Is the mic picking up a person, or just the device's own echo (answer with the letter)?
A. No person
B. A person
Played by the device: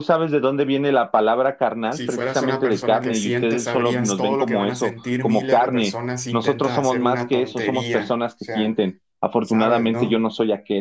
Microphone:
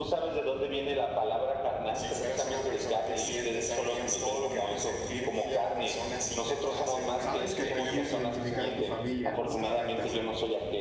B